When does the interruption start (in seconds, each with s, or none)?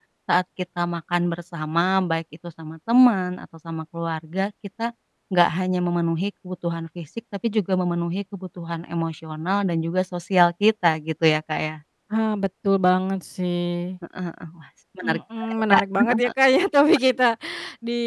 15.0 s